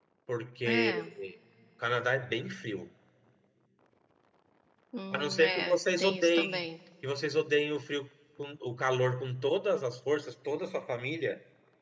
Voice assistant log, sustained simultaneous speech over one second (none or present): present